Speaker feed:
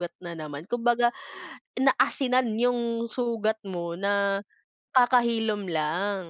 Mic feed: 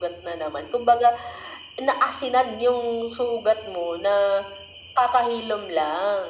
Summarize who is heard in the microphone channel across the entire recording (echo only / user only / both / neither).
echo only